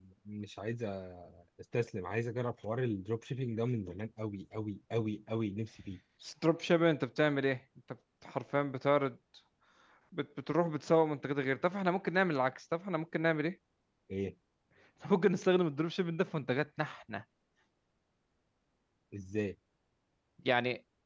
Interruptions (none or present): none